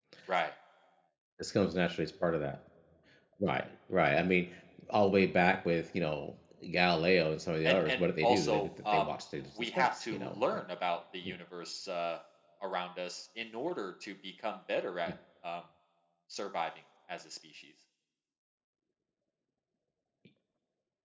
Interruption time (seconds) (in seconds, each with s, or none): 7.6 s